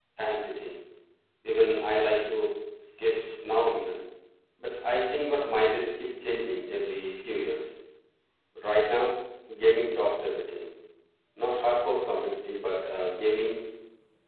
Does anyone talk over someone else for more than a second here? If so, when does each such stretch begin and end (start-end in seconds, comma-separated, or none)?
none